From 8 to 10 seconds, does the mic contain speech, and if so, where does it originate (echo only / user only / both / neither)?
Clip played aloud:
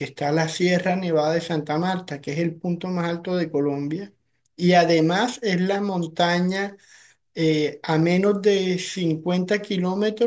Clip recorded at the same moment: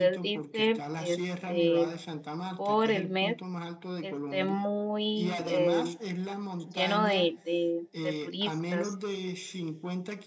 both